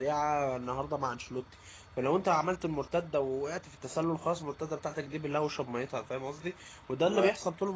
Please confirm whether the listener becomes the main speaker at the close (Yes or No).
No